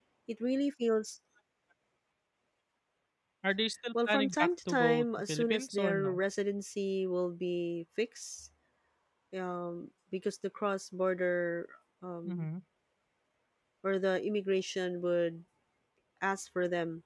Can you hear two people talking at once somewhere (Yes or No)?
Yes